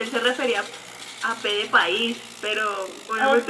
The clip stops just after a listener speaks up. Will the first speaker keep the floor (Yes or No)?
Yes